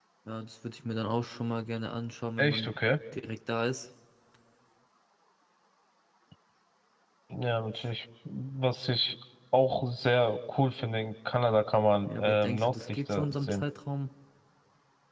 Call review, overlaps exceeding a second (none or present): present